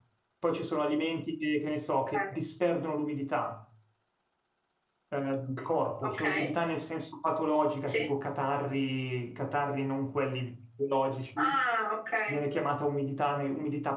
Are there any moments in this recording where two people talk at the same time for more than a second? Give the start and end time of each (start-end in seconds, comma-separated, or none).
none